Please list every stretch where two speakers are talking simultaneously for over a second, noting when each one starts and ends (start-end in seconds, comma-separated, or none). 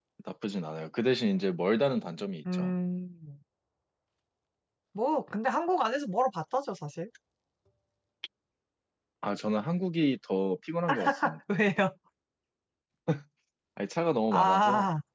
none